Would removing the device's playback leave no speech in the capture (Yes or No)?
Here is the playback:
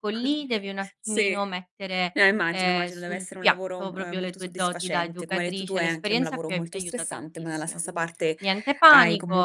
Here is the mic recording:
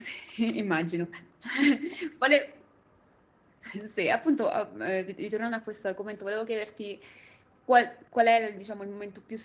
No